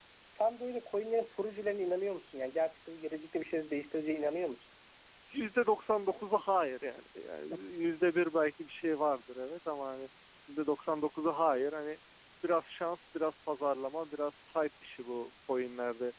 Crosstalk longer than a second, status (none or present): none